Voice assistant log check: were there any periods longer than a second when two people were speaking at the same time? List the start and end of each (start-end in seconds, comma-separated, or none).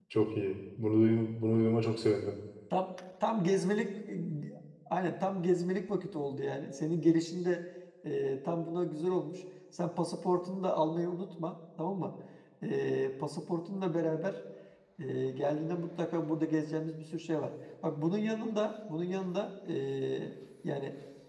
none